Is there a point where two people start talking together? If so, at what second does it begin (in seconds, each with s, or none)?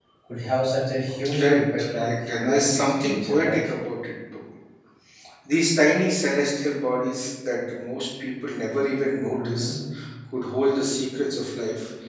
1.4 s